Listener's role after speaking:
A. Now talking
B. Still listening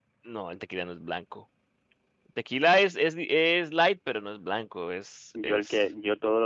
A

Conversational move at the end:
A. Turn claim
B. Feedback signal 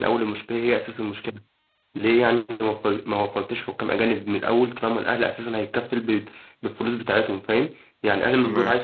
B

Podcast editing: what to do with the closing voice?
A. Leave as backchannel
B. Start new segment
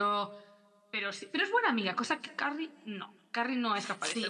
B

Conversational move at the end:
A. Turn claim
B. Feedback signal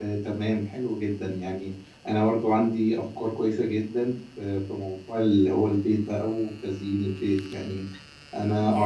B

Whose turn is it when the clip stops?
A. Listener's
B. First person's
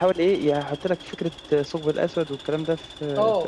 A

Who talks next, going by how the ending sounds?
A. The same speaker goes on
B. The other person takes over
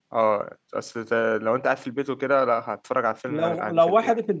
B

